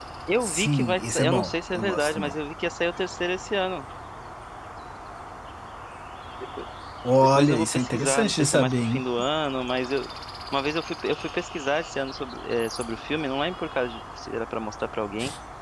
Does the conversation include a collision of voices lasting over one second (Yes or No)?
Yes